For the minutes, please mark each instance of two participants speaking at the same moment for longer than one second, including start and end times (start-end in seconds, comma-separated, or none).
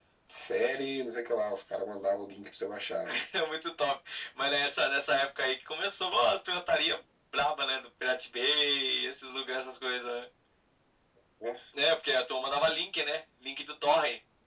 none